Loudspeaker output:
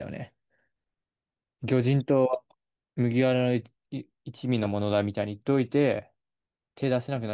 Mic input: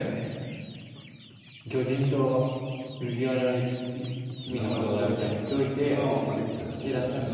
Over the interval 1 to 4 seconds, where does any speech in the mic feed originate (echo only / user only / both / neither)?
echo only